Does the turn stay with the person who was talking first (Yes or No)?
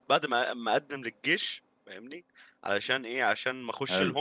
Yes